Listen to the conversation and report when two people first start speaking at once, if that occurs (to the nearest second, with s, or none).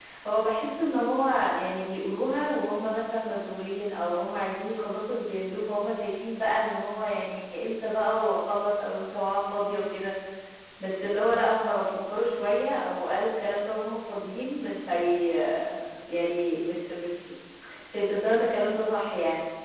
none